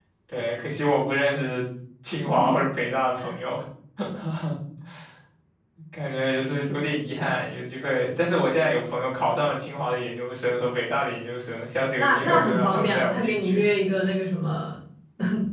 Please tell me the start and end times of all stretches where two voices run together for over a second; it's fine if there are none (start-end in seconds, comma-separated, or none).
11.9-13.6